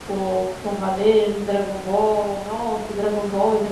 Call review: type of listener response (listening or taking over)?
listening